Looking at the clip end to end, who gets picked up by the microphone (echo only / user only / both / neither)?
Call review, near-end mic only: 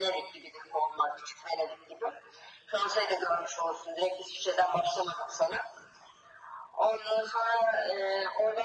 echo only